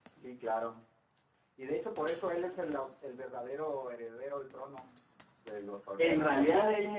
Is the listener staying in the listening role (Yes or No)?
No